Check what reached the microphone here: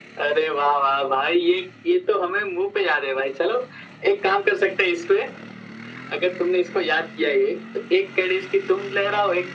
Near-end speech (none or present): none